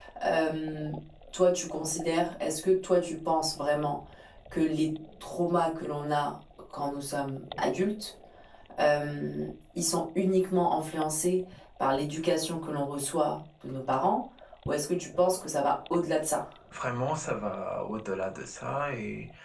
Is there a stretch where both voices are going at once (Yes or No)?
No